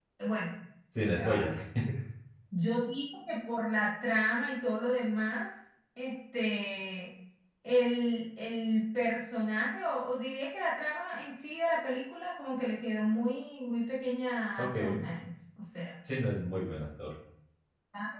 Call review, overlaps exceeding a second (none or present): none